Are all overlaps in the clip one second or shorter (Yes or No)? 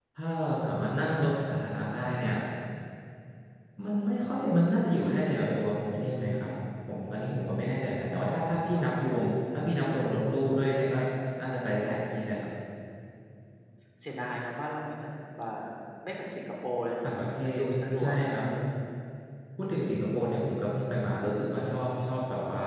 Yes